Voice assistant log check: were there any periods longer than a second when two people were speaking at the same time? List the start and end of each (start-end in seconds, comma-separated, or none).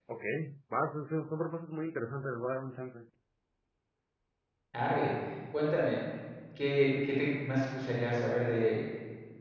none